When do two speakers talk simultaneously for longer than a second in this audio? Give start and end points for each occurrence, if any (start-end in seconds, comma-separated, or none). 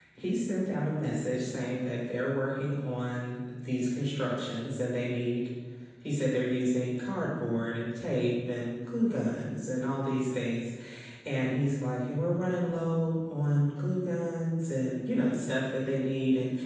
none